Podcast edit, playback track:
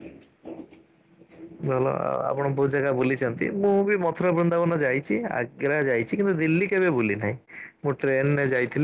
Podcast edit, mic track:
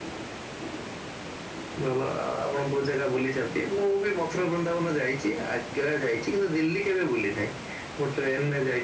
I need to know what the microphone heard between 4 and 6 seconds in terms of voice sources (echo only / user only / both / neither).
echo only